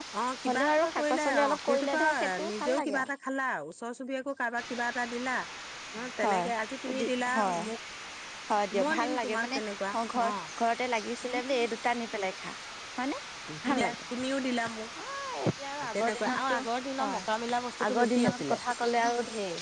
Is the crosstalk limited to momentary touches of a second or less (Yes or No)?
No